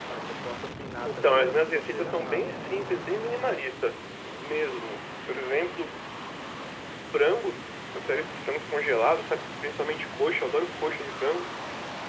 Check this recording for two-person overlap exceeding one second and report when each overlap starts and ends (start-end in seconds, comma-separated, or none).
1.1-2.5